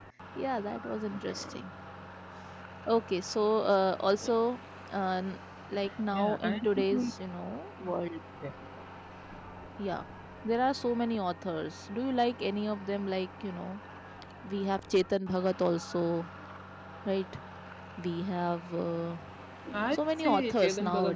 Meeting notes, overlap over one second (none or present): present